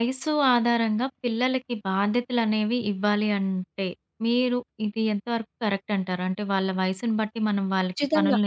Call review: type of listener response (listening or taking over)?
taking over